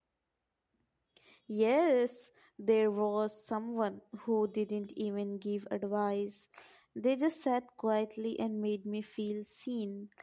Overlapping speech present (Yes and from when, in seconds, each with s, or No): No